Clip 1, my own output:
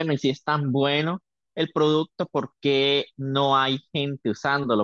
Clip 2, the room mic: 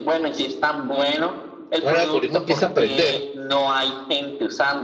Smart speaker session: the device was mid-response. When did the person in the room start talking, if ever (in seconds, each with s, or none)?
1.8 s